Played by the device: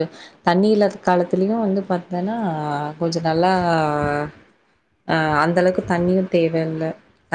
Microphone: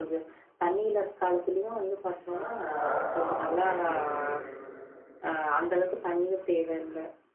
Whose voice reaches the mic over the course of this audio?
both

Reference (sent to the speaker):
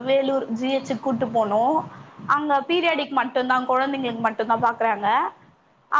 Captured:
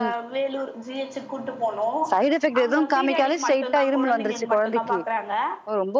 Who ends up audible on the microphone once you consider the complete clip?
both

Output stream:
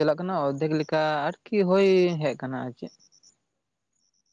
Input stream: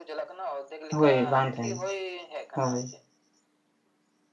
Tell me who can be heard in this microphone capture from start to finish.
both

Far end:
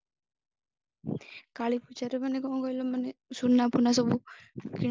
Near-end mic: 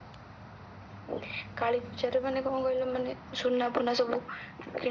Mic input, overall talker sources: echo only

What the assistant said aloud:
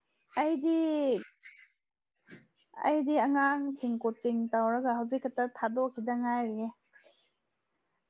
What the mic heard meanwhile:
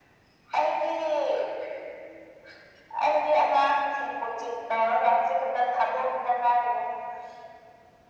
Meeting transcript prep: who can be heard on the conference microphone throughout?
echo only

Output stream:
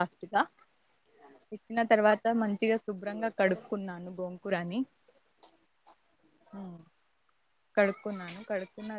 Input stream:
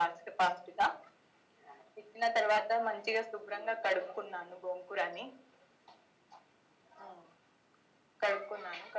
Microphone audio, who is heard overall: echo only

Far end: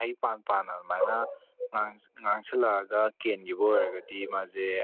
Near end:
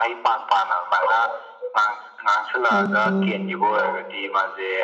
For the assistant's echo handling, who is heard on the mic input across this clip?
both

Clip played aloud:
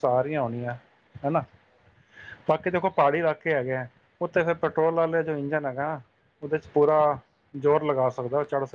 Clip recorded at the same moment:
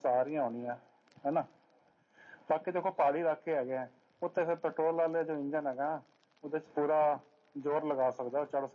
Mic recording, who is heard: echo only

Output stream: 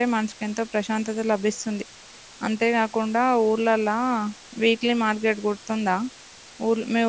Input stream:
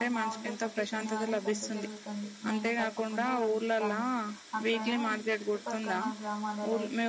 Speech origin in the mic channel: both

